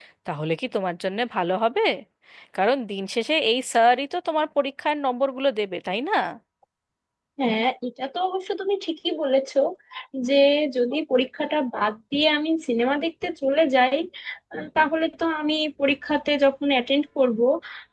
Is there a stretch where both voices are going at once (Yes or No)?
No